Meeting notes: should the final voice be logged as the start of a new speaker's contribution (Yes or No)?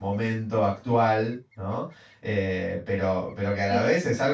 No